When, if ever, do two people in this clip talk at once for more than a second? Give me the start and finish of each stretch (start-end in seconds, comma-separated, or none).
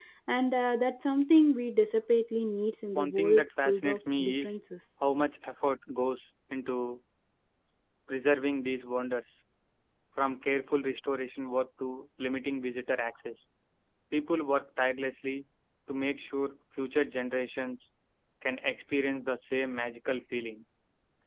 2.9-4.6